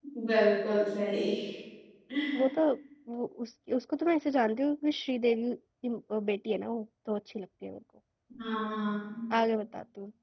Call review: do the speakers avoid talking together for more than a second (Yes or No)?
Yes